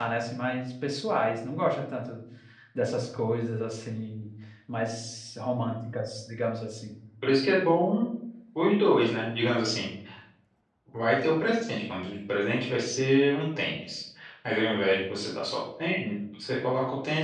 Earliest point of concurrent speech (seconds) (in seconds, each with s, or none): none